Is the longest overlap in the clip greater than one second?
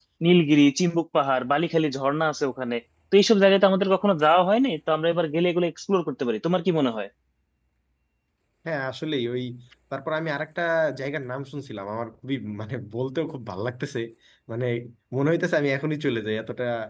No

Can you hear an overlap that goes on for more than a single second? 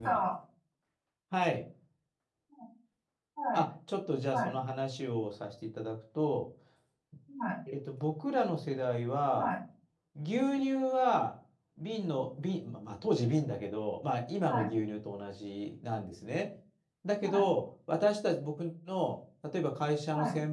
No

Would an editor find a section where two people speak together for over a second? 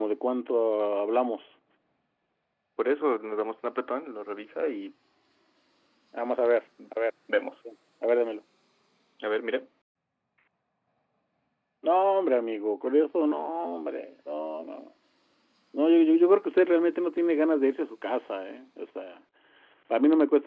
No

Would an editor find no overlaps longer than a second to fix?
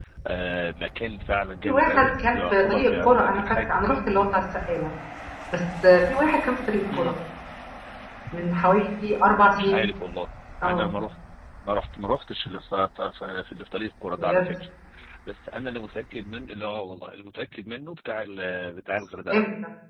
No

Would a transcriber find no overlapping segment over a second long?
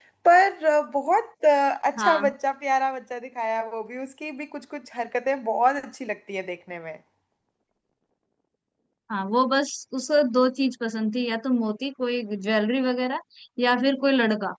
Yes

